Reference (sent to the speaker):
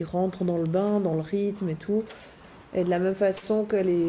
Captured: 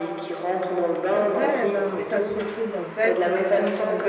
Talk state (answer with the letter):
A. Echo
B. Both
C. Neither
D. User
B